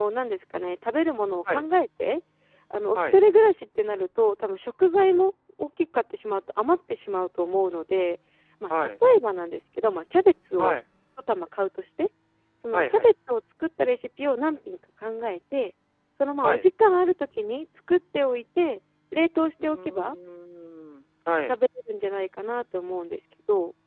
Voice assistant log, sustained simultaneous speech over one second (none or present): none